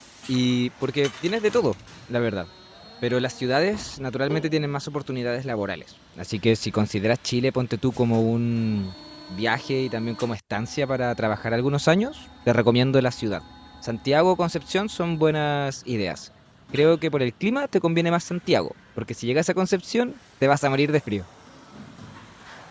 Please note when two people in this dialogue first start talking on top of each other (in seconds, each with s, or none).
none